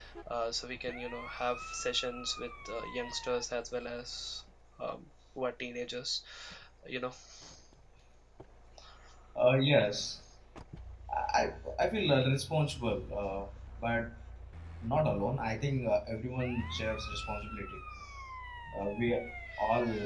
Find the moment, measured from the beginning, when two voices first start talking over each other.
none

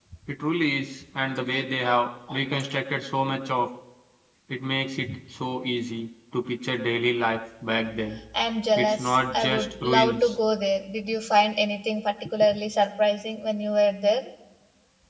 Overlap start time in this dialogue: 9 s

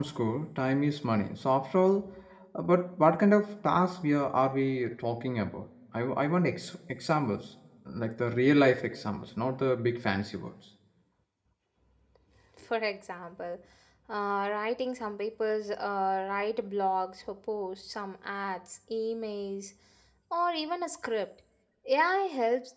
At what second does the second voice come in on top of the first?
none

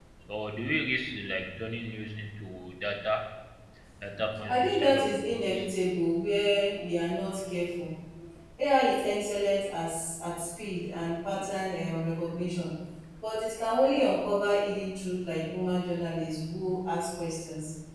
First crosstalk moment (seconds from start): 4 s

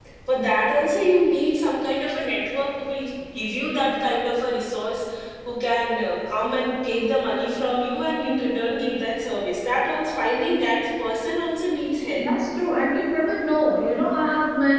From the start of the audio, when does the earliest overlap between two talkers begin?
none

